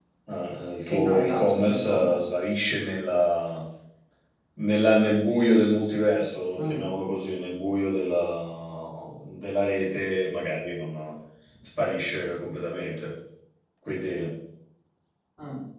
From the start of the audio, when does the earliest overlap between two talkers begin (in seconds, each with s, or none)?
0.8 s